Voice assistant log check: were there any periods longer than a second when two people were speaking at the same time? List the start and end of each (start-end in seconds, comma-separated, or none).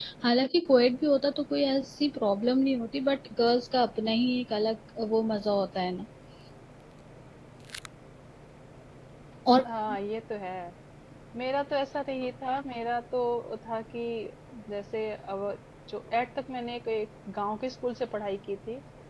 none